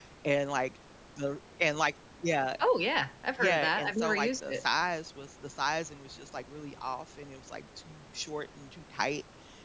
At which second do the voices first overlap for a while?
3.4 s

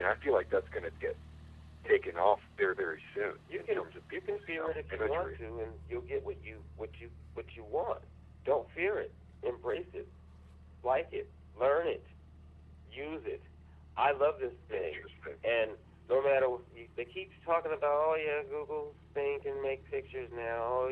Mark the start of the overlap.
3.5 s

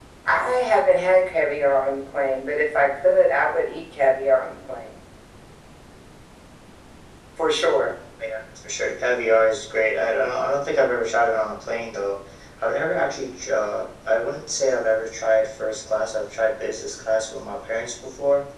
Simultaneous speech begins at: none

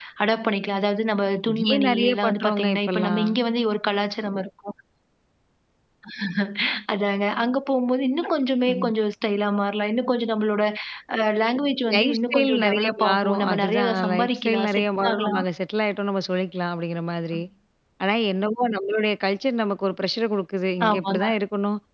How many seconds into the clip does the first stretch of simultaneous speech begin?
1.5 s

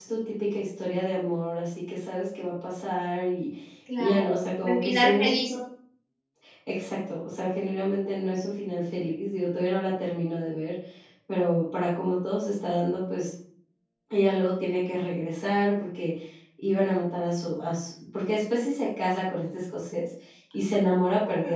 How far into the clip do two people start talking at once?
4.0 s

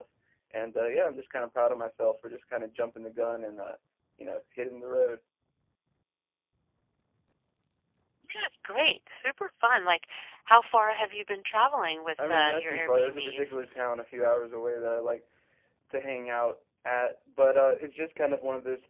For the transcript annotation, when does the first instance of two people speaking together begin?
12.2 s

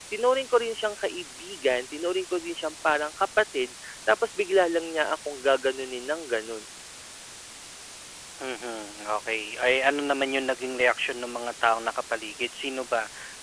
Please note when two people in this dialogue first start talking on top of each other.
none

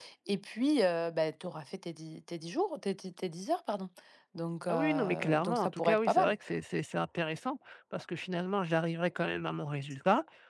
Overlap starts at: 4.7 s

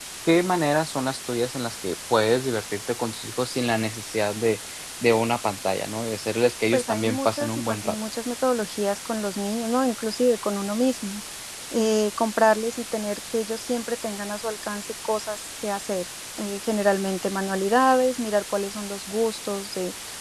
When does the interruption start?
6.7 s

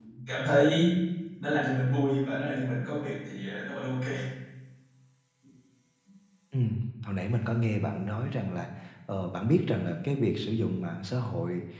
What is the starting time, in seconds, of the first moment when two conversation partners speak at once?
none

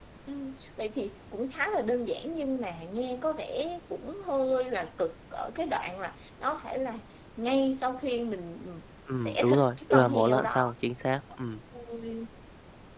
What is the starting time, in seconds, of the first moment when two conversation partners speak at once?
9.1 s

